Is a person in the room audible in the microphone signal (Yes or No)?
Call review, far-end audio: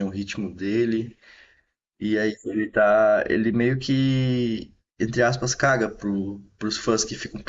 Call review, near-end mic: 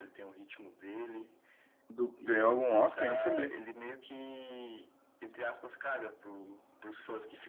Yes